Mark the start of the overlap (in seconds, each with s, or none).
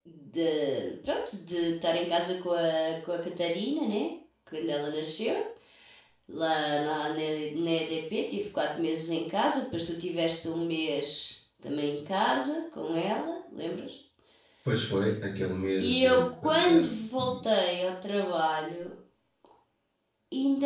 15.8 s